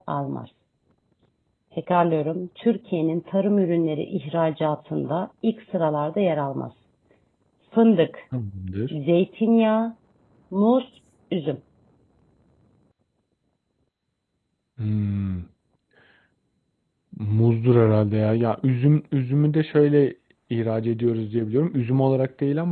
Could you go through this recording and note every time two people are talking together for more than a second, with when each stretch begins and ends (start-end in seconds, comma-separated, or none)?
none